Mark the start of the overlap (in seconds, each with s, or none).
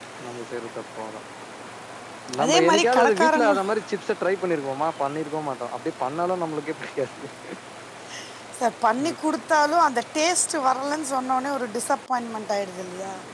2.4 s